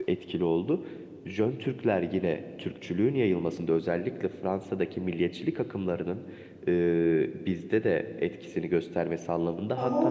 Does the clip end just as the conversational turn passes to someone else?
No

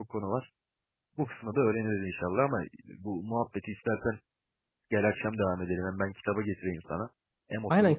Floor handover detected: Yes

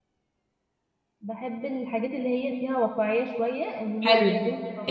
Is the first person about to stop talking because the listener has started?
Yes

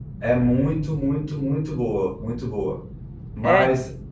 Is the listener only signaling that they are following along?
Yes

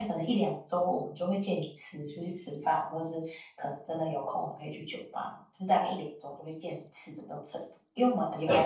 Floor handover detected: No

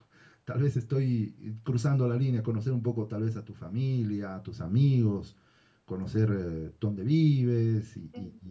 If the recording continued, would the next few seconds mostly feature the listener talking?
Yes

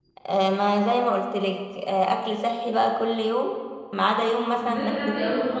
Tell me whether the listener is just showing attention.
No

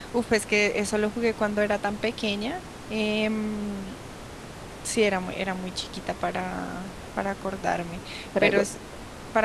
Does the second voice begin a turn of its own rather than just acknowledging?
No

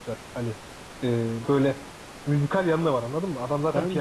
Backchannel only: No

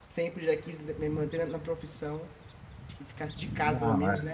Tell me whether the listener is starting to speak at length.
No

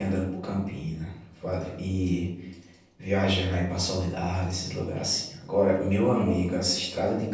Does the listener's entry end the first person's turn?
No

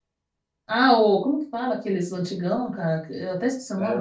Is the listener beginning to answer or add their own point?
Yes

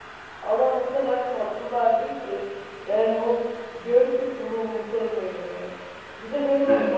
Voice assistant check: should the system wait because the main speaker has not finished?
Yes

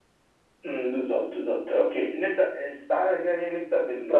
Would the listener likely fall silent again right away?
Yes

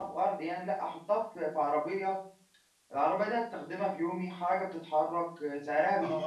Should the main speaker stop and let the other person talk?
Yes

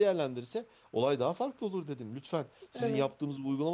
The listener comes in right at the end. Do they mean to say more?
No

